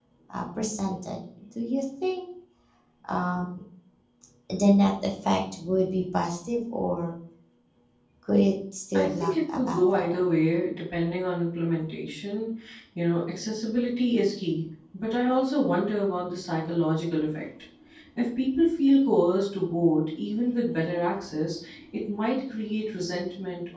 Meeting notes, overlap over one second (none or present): present